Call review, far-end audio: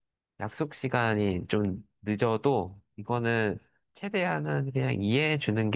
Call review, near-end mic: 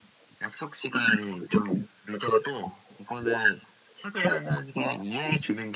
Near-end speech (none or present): none